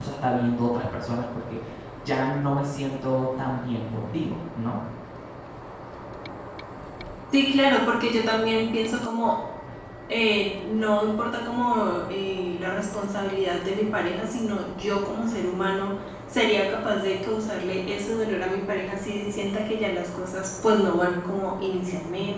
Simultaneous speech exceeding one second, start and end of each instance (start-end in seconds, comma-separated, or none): none